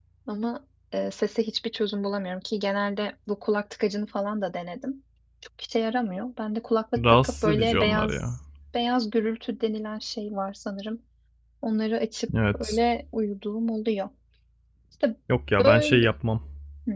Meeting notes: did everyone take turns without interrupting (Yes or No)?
No